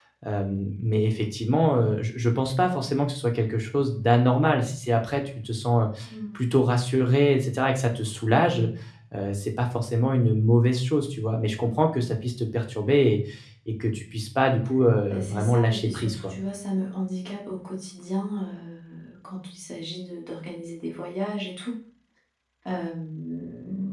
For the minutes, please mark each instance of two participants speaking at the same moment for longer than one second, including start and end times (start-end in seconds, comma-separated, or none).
15.1-16.3